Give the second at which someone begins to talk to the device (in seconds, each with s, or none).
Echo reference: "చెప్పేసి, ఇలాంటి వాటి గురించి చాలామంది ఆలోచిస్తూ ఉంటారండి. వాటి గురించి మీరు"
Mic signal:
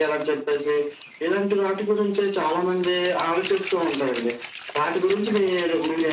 none